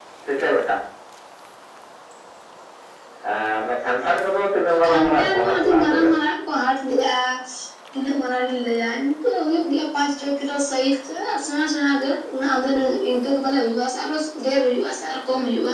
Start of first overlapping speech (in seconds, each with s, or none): 4.8 s